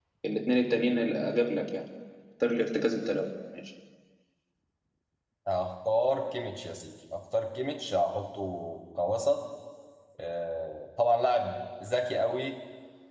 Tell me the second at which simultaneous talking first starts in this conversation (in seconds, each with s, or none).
none